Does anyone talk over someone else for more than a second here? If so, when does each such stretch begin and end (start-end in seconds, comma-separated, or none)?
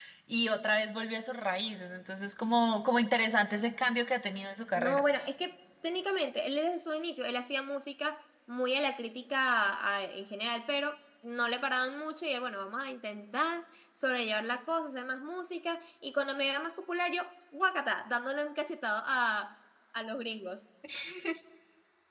none